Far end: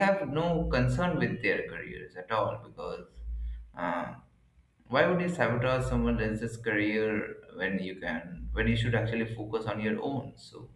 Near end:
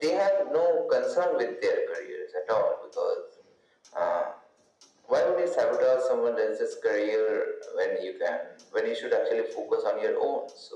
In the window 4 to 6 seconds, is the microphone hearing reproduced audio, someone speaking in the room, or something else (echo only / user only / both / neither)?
echo only